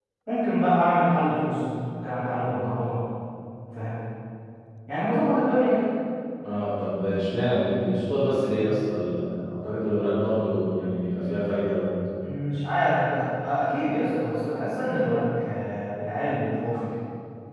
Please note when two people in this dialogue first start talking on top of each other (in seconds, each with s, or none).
none